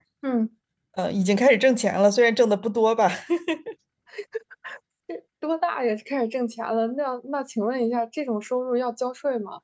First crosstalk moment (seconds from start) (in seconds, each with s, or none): none